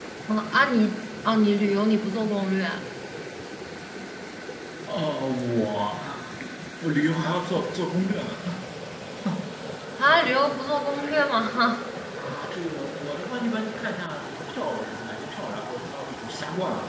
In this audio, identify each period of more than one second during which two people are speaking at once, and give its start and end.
none

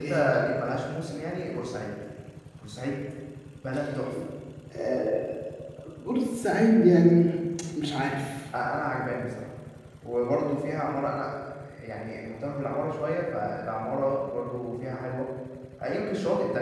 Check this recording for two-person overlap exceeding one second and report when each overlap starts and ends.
none

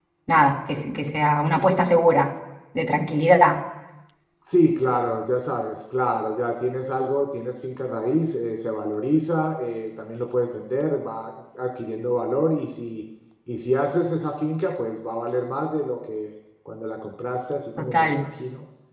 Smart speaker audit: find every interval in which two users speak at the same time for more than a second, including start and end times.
none

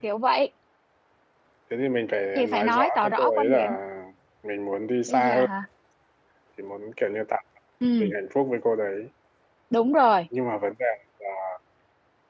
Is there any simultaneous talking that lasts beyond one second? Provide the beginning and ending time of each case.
2.4-3.8

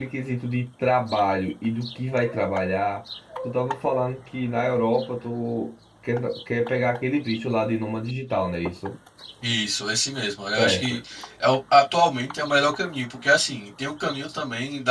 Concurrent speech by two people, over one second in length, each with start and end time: none

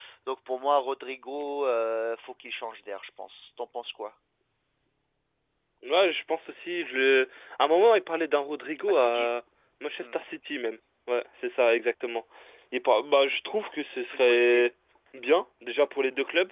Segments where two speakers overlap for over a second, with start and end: none

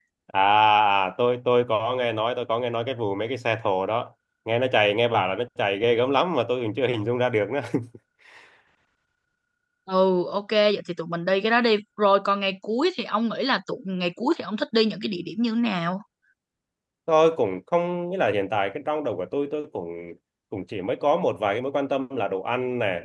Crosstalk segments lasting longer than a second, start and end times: none

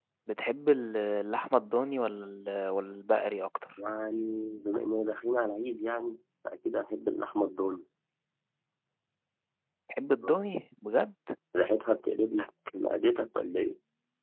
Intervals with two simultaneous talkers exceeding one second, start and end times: none

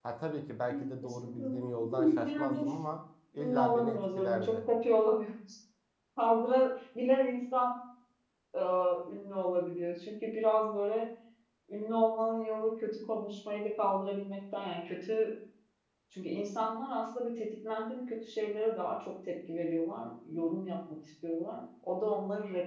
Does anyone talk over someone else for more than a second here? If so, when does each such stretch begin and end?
0.7-2.7, 3.4-4.6

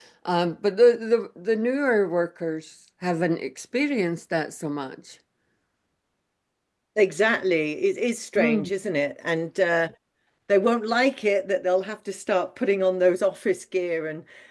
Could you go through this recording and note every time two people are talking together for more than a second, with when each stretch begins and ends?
none

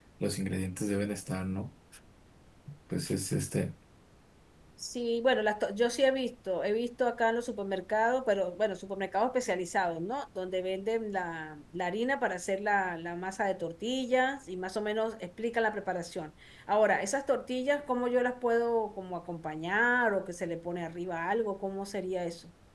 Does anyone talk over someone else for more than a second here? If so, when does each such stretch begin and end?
none

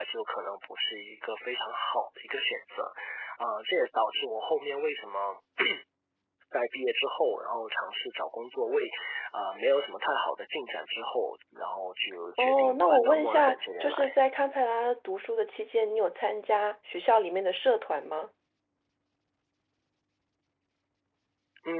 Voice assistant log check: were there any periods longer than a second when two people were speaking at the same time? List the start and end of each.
12.4-14.2

